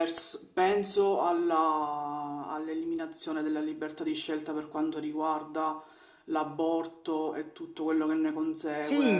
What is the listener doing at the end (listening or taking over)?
taking over